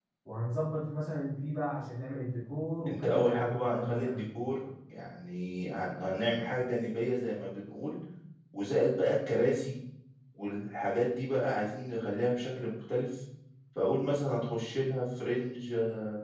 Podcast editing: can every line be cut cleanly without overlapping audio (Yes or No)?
No